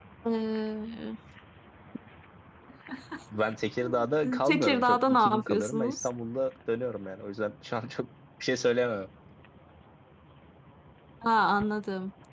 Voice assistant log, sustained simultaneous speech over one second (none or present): present